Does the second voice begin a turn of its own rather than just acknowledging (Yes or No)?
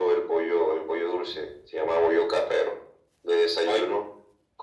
No